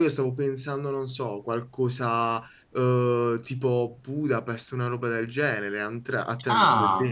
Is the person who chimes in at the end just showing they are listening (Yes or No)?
No